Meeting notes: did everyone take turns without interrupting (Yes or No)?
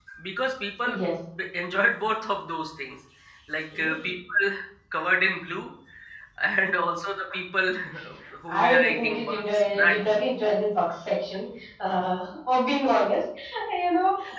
No